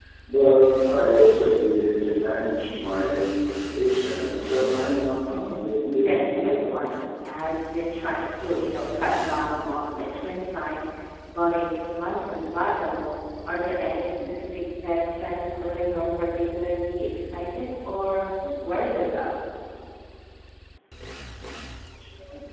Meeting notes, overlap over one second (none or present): present